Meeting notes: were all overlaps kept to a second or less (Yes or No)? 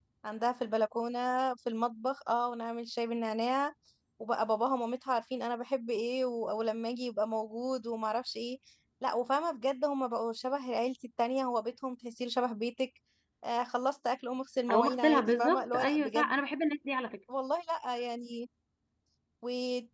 No